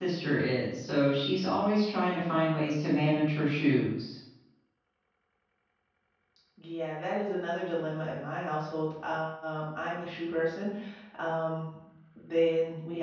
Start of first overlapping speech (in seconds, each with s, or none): none